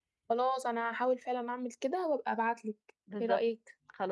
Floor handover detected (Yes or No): Yes